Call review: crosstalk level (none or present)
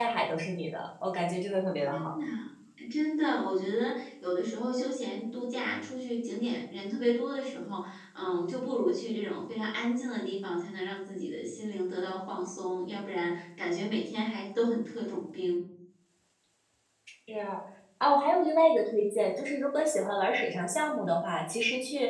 none